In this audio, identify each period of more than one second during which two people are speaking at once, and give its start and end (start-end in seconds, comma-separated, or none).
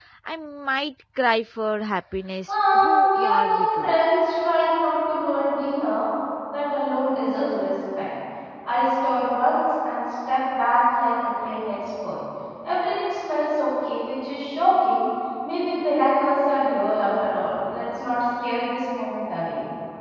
2.5-4.0